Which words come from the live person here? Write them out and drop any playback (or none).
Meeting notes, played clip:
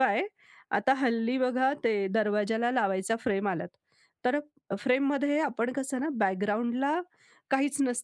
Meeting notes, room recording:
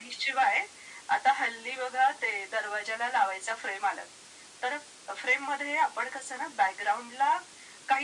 none